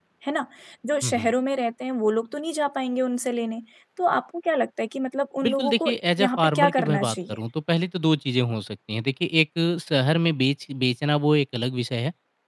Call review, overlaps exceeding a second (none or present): present